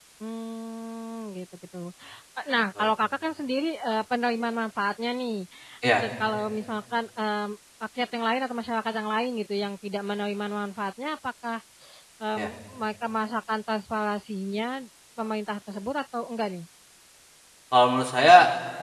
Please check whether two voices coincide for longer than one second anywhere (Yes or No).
No